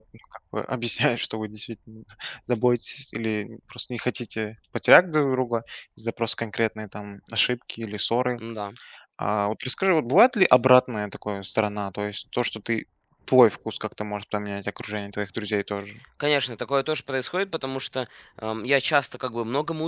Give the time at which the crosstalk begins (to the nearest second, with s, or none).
none